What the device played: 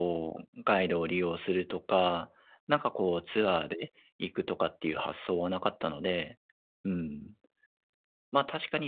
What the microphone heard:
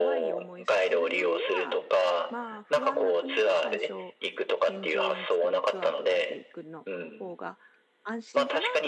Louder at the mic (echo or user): echo